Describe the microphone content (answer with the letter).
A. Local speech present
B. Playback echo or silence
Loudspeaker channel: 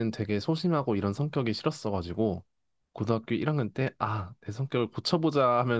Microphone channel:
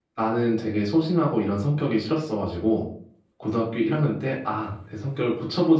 B